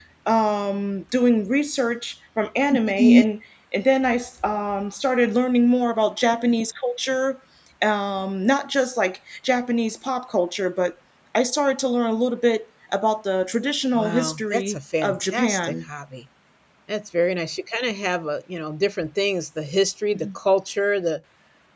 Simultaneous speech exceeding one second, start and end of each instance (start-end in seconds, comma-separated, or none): 13.9-15.7